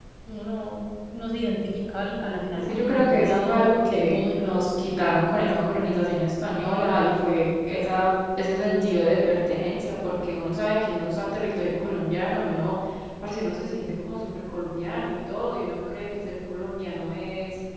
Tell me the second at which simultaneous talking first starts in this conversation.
2.5 s

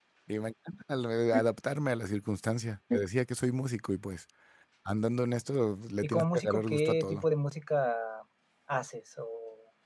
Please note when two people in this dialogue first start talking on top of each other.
6.0 s

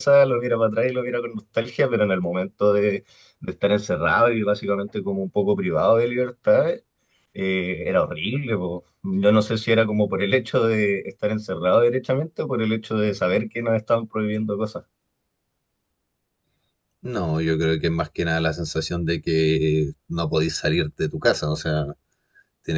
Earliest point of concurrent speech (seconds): none

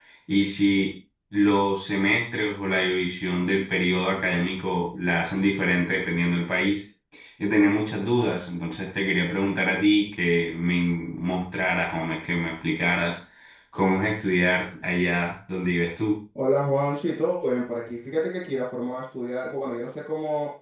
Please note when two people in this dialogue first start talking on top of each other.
none

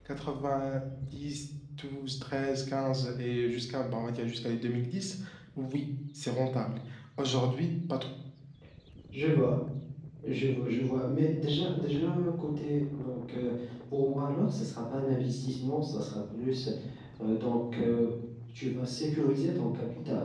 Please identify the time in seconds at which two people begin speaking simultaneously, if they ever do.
none

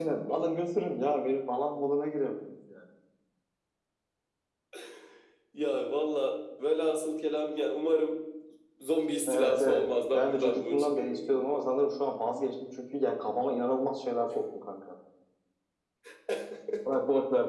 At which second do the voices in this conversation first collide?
9.3 s

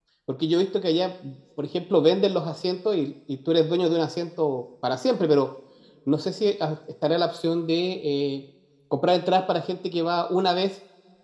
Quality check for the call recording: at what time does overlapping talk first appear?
none

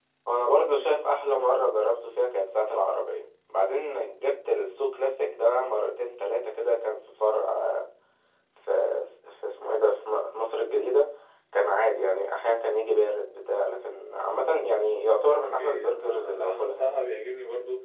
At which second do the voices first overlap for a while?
15.3 s

